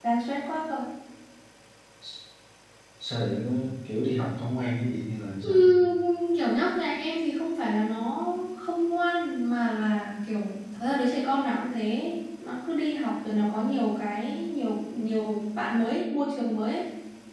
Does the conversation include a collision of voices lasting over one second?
No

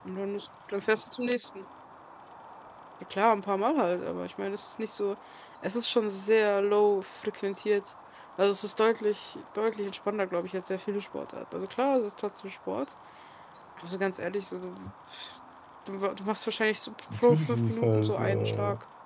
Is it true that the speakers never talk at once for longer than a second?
No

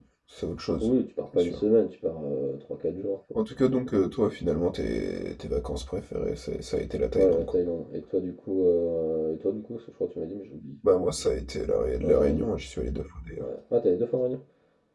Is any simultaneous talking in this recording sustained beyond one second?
No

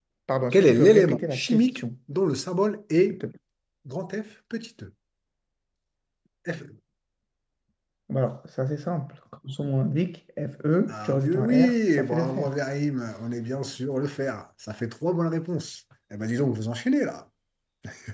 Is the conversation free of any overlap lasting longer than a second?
No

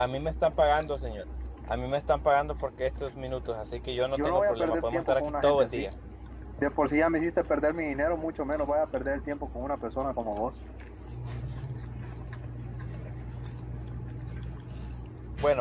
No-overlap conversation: No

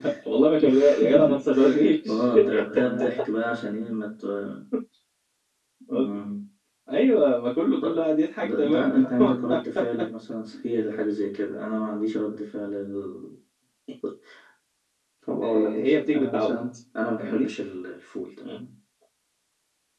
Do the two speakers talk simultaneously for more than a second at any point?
Yes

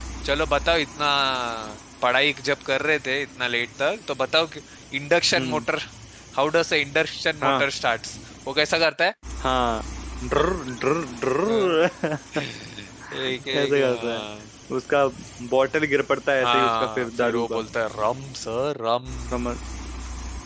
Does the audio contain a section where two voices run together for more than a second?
Yes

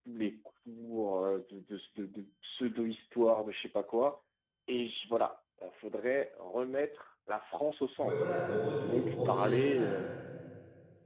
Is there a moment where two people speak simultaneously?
Yes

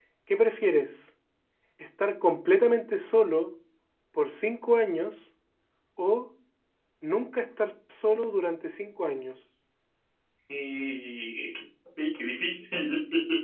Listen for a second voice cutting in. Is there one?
No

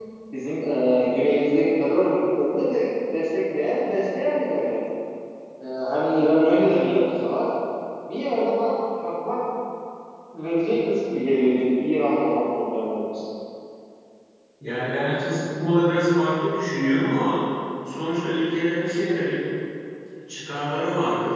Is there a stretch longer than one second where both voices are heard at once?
No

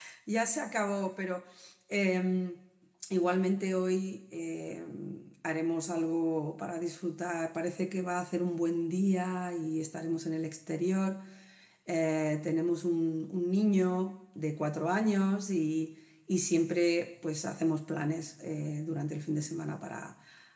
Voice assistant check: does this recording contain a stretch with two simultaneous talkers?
No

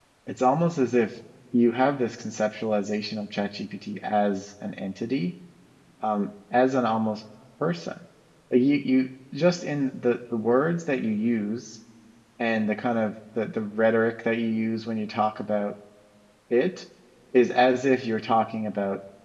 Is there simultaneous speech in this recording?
No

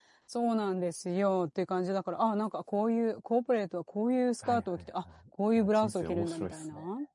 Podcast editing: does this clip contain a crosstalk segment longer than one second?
Yes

